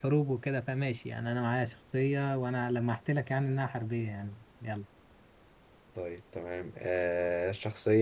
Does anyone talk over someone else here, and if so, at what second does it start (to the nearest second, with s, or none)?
none